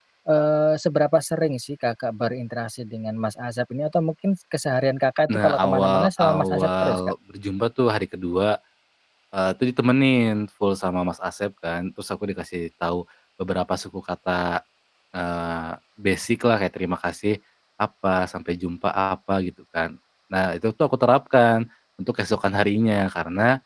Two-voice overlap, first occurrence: 5.3 s

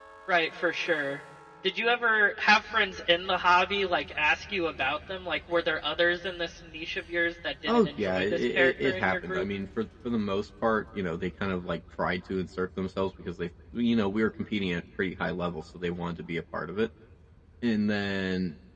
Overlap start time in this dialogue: 7.7 s

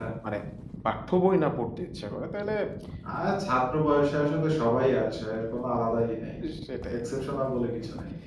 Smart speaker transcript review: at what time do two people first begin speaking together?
none

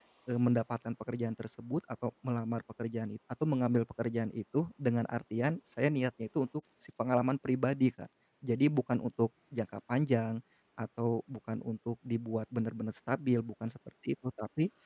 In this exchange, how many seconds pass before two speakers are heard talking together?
none

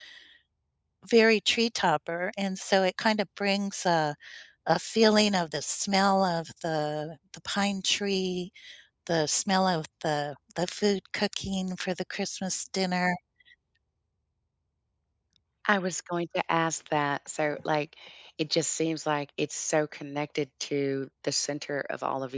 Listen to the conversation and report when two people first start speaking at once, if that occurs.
none

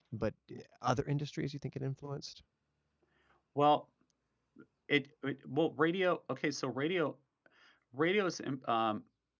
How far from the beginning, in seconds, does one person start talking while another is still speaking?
none

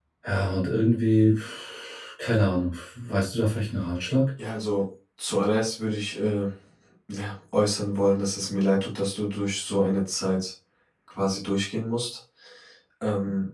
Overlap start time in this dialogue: none

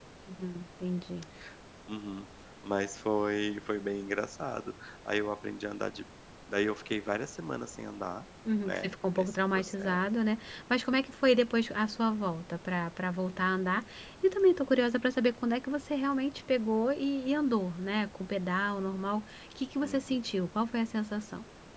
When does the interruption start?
8.6 s

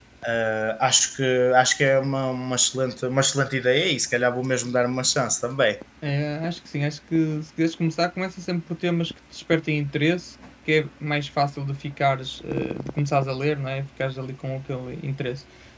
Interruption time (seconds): none

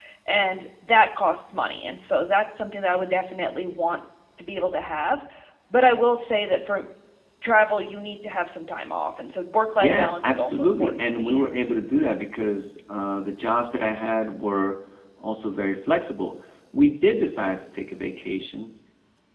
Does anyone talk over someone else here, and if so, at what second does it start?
9.8 s

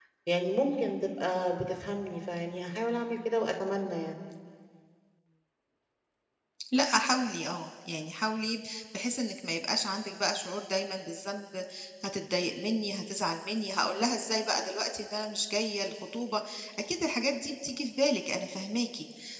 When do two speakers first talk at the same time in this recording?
none

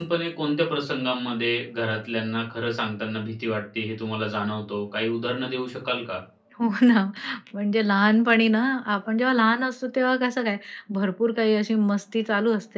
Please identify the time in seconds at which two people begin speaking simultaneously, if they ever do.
none

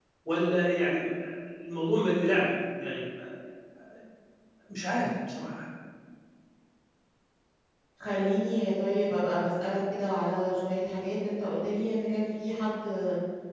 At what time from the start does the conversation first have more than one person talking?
none

